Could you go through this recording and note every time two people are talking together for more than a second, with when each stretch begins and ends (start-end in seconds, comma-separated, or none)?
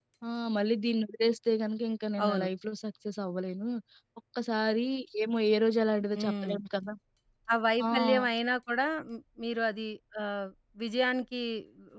none